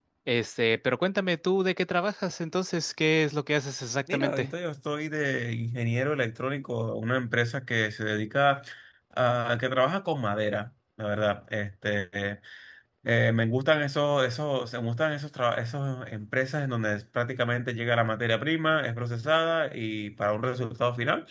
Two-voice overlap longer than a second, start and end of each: none

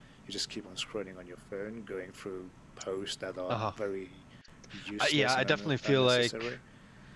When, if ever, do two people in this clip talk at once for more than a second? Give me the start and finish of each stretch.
5.0-6.4

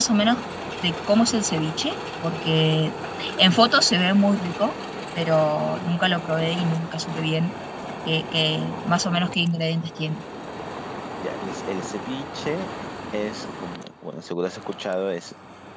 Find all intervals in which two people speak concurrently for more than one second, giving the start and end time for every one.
none

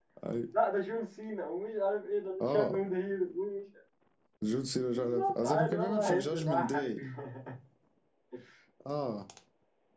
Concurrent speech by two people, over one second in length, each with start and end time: 4.9-6.9

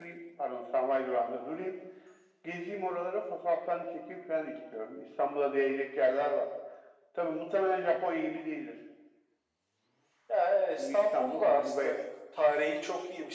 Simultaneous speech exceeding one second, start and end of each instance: 10.8-12.0

